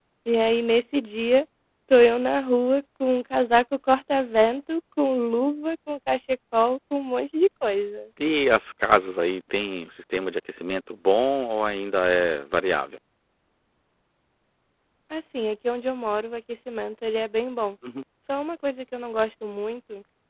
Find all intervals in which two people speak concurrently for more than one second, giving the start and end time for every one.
none

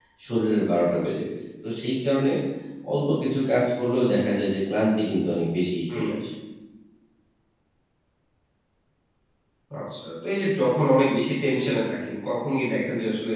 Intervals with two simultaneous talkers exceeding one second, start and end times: none

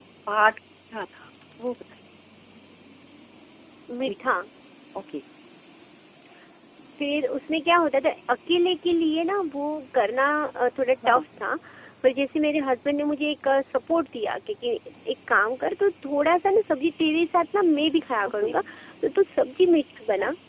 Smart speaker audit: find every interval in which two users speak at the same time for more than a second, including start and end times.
none

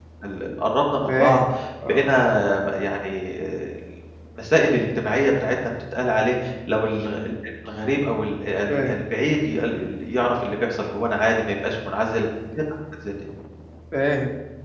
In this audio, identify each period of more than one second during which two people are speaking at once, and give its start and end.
none

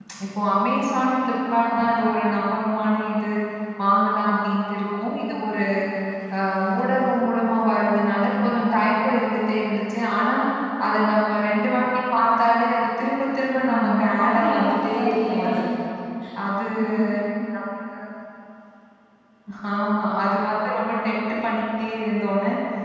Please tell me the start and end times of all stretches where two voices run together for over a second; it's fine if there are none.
13.6-15.4

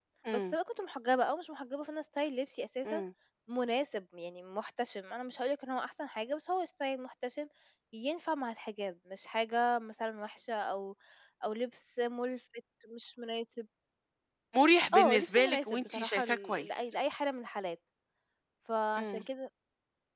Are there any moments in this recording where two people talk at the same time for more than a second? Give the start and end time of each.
14.9-16.9

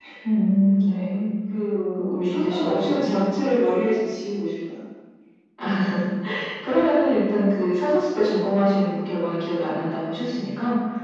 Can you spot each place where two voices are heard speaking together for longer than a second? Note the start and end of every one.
2.0-3.2

